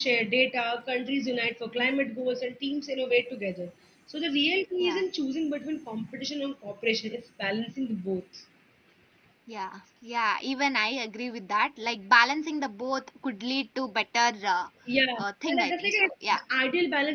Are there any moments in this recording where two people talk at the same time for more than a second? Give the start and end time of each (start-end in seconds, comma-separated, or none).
15.2-16.4